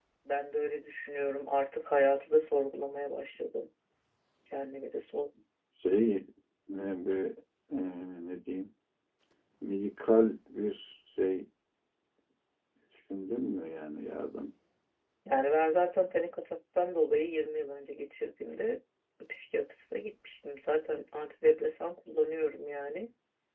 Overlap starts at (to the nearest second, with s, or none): none